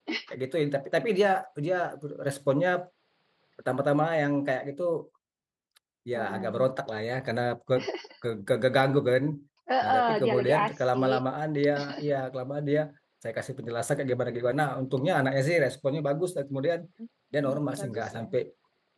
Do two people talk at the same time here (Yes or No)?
Yes